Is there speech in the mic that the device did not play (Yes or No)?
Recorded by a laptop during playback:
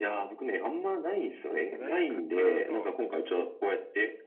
Yes